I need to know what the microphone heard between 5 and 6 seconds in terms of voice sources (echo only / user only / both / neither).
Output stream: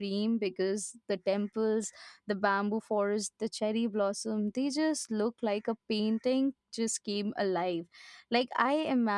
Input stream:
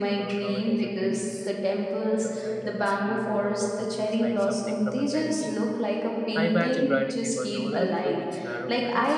both